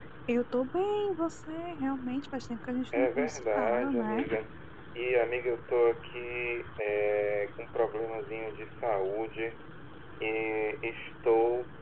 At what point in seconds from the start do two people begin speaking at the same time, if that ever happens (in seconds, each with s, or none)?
2.9 s